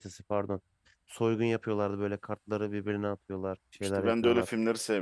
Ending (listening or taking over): taking over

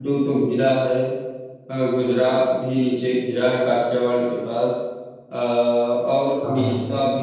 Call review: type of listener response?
listening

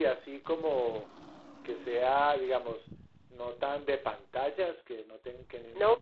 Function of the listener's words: taking over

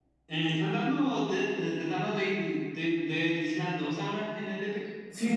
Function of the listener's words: taking over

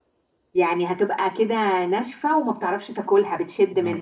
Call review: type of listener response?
taking over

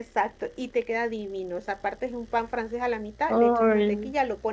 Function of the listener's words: listening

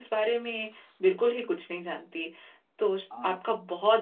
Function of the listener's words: listening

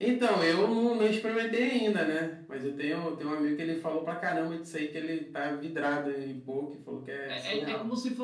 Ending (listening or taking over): taking over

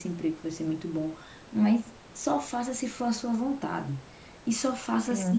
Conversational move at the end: listening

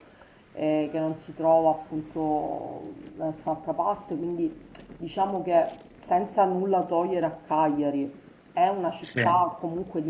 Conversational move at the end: listening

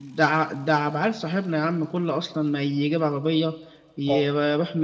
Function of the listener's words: listening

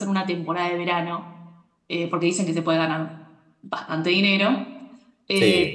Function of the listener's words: listening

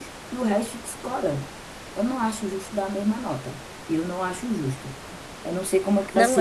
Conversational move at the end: taking over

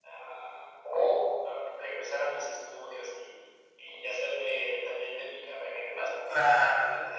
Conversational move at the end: listening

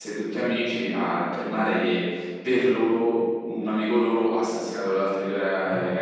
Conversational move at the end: taking over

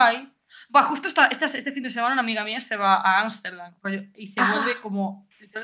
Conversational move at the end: listening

